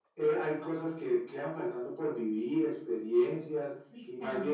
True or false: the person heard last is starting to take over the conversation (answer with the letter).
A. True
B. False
A